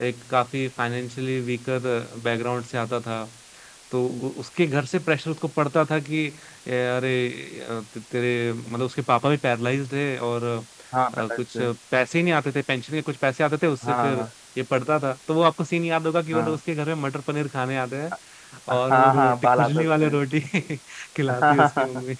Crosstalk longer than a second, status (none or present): present